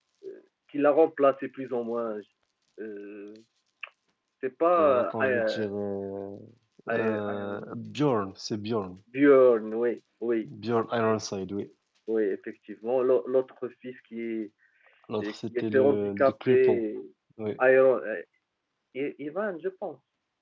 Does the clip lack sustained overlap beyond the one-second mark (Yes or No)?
No